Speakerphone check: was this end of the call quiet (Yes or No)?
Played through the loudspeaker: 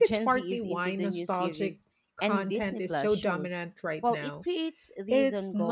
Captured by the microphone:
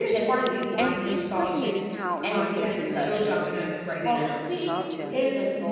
No